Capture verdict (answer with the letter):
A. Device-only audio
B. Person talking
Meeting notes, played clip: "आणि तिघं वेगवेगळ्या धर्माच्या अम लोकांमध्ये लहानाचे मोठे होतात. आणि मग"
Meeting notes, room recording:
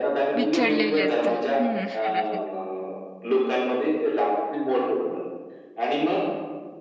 B